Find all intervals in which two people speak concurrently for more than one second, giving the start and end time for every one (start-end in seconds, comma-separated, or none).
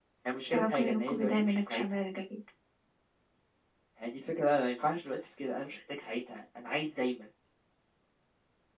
0.5-1.8